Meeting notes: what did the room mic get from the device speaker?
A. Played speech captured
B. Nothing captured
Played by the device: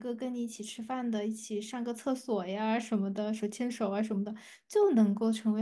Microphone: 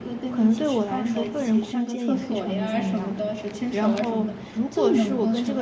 A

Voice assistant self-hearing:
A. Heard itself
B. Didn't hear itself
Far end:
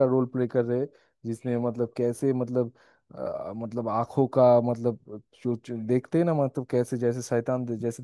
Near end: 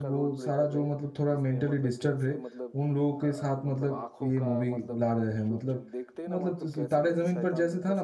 A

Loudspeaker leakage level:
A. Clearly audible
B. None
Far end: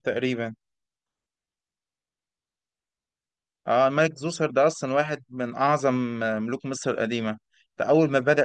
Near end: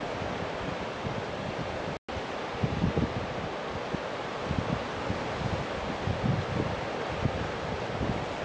B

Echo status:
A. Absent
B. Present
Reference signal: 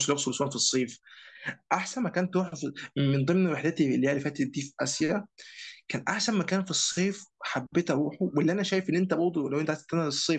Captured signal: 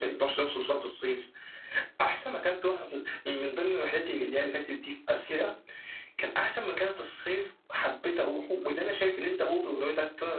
B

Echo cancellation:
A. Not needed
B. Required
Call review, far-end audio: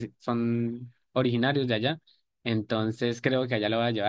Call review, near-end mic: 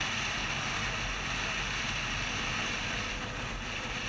A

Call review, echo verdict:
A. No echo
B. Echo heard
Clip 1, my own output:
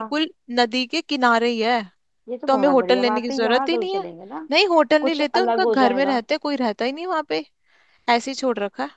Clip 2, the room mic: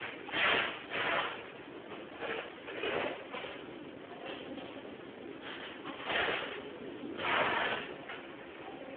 A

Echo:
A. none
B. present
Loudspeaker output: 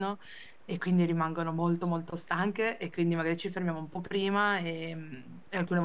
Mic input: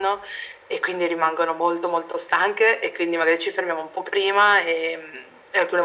B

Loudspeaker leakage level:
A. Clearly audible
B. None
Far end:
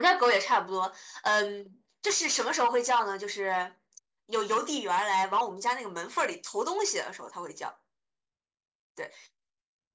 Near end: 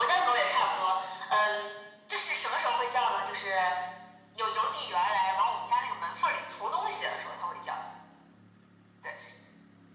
A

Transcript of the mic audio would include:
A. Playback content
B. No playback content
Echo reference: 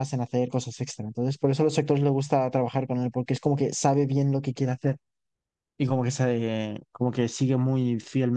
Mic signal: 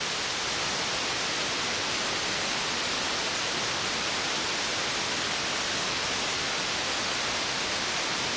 B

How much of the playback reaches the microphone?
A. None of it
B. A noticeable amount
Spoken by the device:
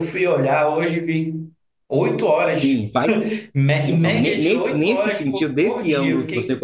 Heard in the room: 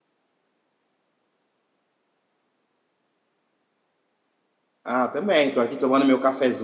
A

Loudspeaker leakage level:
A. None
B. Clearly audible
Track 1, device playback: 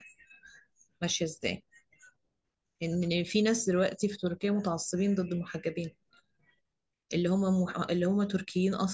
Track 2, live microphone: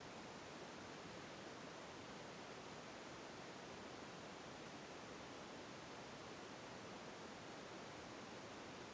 A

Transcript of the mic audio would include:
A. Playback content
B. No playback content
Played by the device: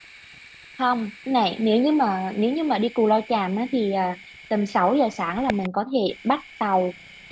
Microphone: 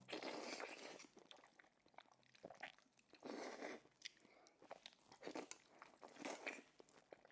B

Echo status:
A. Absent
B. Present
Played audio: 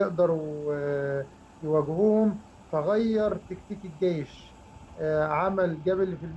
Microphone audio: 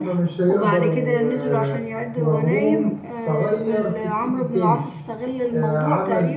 B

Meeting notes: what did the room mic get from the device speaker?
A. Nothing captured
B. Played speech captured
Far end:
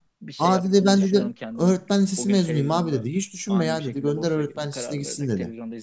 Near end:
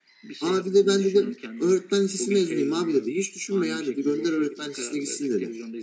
B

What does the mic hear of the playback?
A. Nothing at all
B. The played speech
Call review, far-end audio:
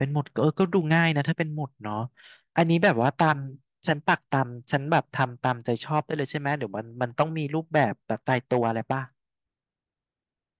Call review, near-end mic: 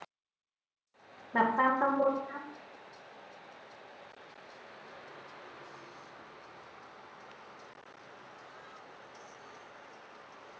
A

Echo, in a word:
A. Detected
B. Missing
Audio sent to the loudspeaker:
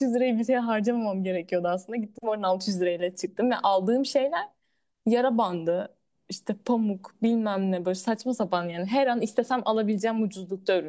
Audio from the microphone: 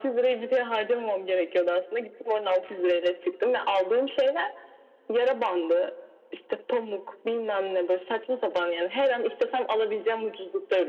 A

